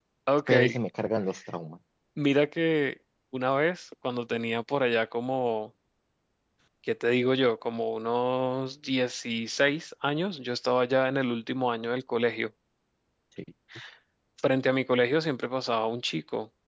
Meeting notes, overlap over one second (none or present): none